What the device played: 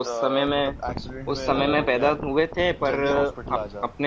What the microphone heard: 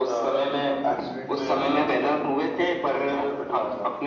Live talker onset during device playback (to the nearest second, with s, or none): none